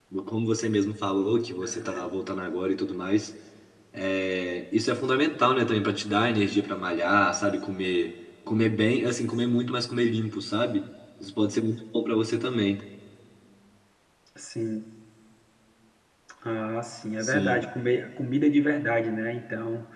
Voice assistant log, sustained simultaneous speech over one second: none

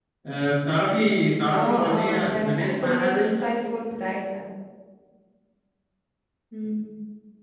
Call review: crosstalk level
present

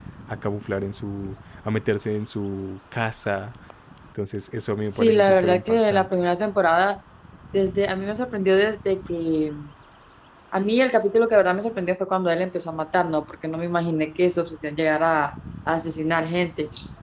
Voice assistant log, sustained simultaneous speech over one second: present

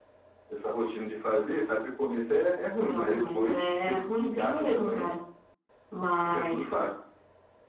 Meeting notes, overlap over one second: present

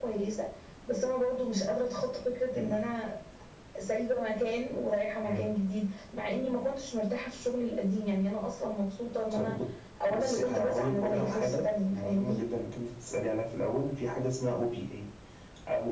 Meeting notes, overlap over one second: present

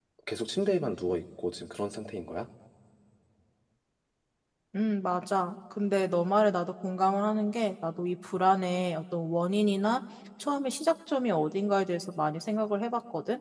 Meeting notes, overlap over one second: none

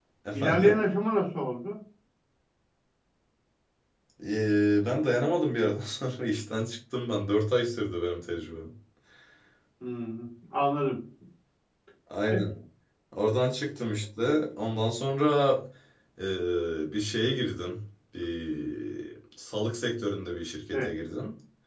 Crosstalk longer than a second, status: none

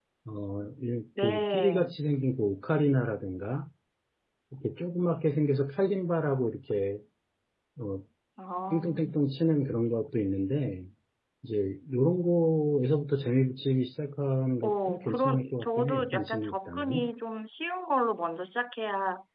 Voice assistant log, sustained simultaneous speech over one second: present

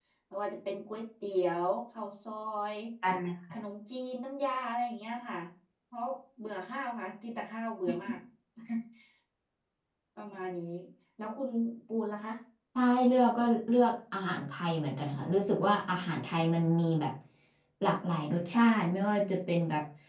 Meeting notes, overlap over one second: none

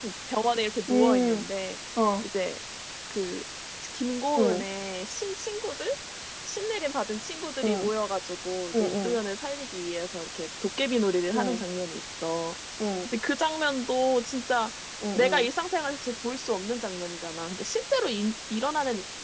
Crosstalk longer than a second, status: none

